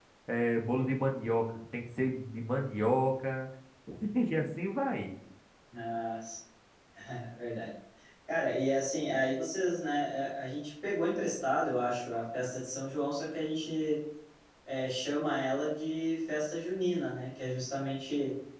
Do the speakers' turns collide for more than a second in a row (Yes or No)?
No